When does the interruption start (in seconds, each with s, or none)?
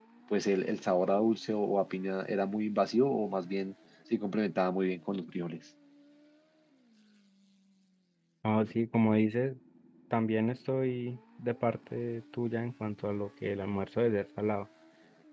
none